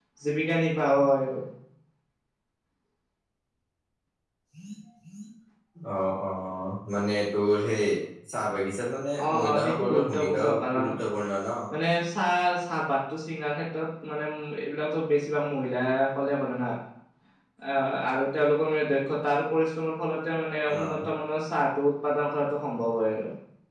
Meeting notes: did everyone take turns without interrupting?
No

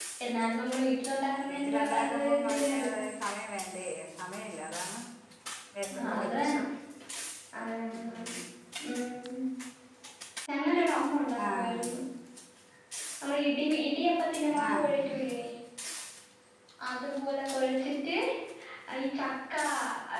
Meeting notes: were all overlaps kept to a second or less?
No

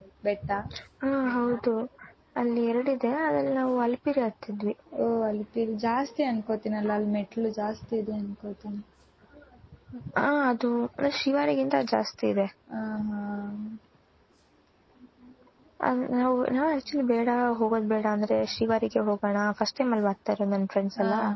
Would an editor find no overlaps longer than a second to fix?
Yes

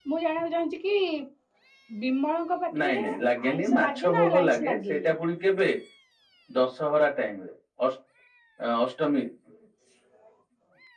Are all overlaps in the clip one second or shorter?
No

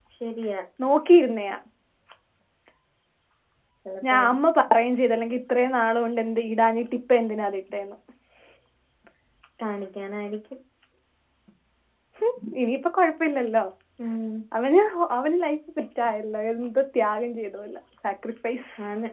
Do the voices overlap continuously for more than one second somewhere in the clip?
No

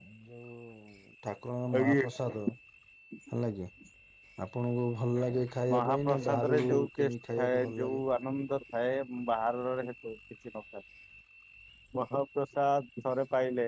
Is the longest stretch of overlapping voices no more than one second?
No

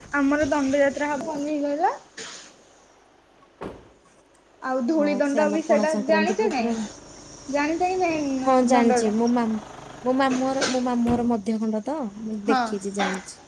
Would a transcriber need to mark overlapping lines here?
Yes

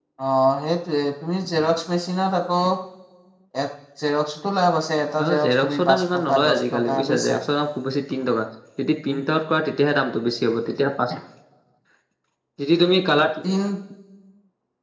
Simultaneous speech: Yes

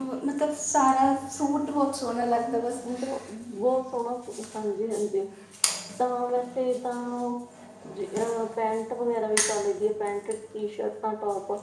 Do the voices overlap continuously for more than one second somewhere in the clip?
No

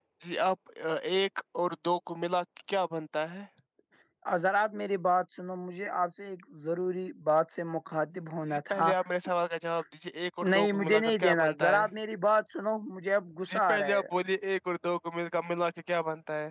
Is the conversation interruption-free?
No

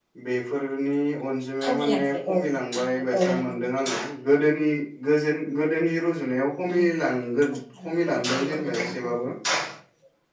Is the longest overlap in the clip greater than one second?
Yes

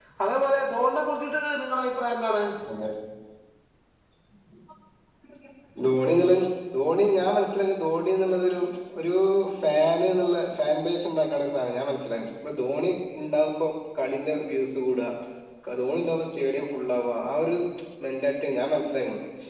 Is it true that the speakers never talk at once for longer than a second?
Yes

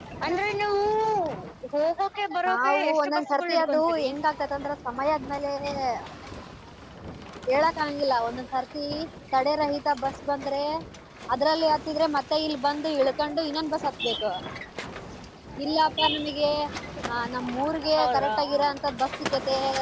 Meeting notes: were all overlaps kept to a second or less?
No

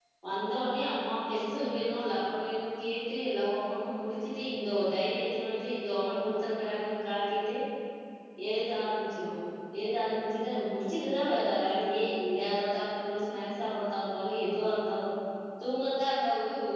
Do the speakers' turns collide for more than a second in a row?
No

